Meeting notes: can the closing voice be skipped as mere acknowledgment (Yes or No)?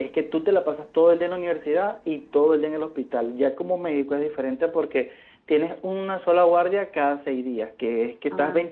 Yes